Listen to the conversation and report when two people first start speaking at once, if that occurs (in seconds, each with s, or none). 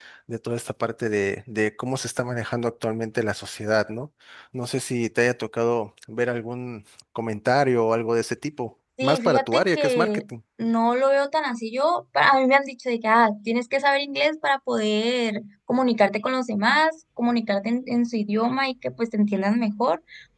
9.0 s